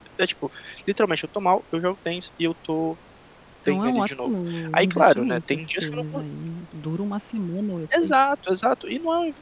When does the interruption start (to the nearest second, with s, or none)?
4 s